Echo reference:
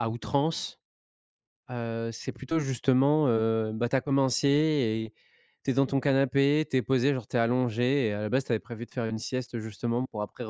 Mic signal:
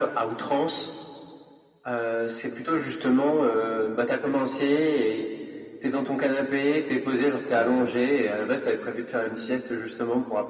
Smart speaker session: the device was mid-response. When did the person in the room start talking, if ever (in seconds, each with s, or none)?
7.5 s